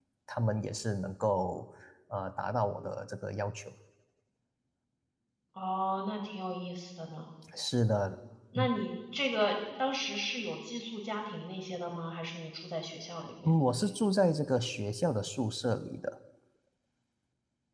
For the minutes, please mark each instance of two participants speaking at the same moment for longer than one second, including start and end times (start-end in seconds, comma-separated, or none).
none